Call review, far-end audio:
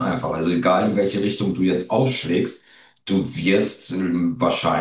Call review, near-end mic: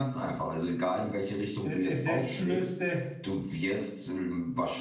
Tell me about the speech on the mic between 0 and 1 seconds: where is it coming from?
echo only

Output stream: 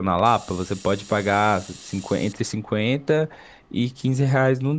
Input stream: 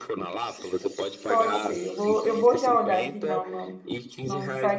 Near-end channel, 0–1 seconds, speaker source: echo only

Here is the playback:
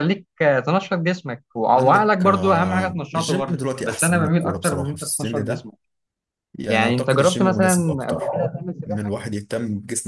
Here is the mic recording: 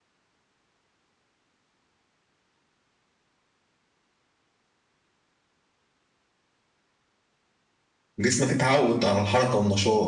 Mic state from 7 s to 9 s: user only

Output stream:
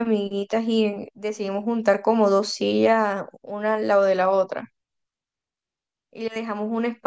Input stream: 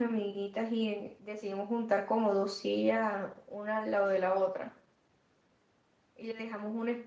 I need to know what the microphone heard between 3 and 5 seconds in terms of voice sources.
echo only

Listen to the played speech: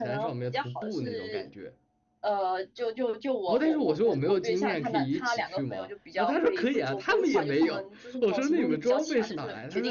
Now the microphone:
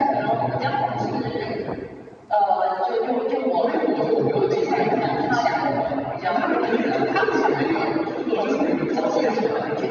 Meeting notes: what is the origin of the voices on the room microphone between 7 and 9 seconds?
echo only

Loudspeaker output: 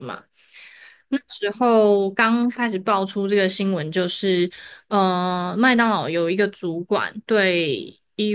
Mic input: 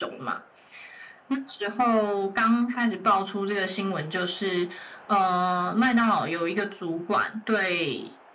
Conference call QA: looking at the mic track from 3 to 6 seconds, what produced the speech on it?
echo only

